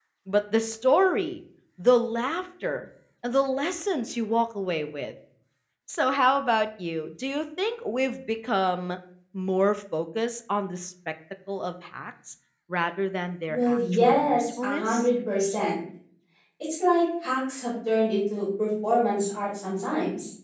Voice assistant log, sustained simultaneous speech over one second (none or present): present